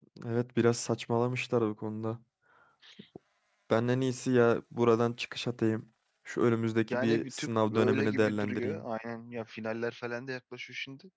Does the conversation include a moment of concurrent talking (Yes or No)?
Yes